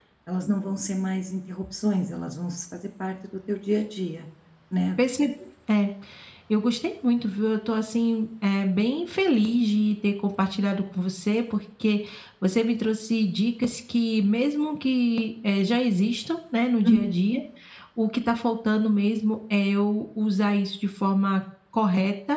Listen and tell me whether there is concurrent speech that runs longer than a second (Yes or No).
No